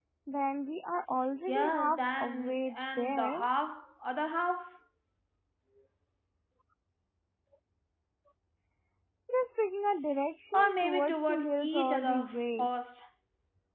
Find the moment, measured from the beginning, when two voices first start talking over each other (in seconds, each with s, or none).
1.5 s